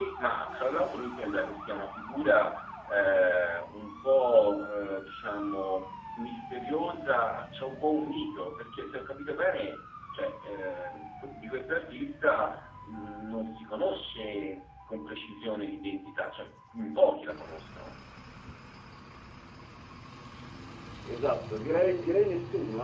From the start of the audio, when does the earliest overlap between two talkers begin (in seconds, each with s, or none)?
none